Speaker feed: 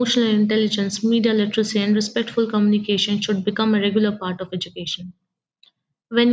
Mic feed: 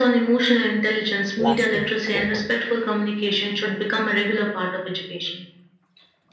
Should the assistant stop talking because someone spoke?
Yes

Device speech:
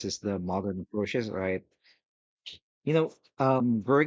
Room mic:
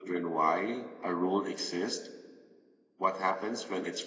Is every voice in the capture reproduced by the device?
No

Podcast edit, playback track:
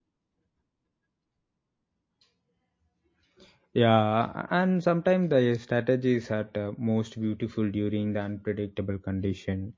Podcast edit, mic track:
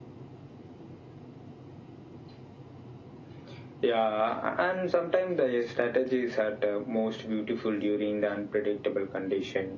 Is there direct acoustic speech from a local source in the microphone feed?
No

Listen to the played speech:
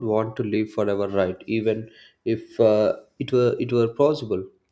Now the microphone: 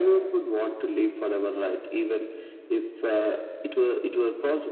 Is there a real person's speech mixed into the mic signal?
No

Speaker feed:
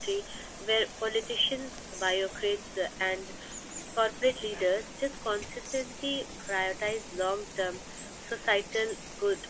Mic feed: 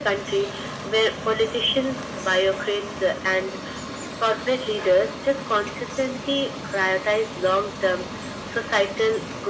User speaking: No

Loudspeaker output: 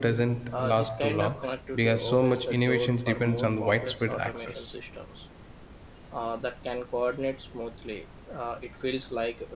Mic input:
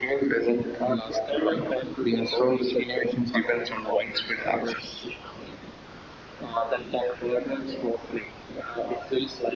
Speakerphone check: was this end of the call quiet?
Yes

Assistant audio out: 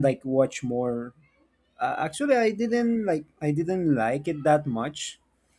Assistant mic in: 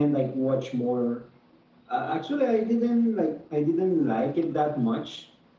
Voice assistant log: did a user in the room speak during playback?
No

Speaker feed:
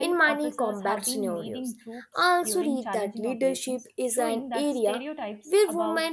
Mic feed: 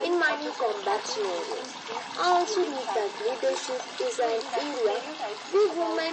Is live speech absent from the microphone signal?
Yes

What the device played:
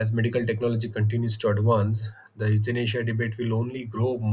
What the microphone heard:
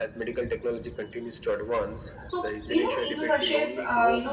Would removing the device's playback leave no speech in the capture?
No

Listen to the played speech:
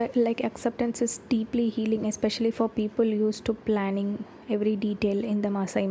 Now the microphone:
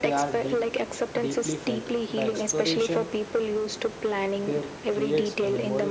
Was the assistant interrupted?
Yes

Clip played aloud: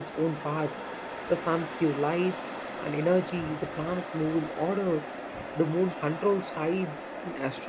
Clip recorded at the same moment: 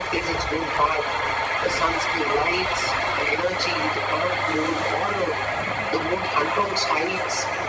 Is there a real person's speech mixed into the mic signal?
No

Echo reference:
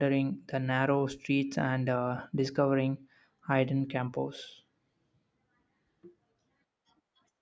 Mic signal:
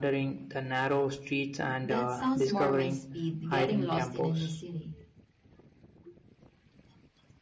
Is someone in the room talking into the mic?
Yes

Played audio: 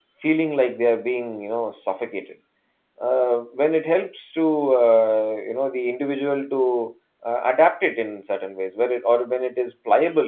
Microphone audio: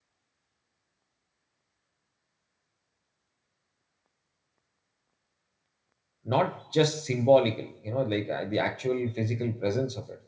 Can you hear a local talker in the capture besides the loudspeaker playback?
Yes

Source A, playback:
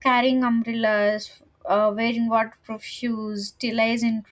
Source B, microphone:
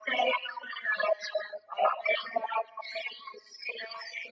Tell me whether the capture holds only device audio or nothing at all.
Yes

